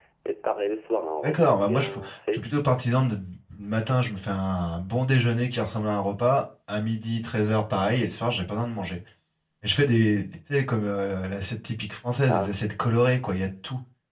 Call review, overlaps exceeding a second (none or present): present